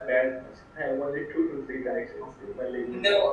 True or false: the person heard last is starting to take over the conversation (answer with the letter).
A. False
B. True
B